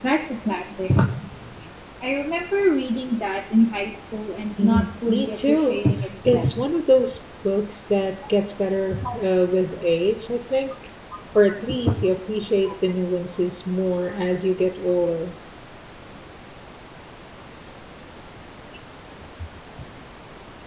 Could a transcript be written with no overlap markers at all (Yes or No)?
No